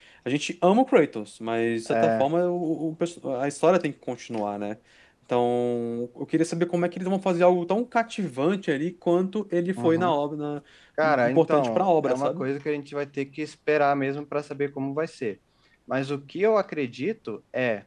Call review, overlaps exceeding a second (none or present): present